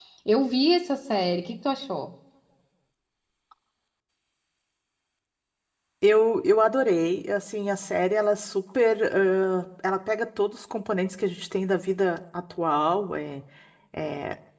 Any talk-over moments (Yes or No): No